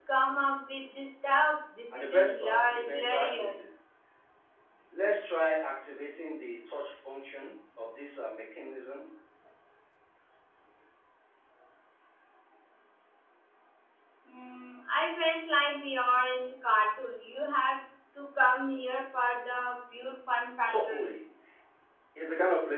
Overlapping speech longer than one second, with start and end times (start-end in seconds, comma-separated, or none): 1.9-3.5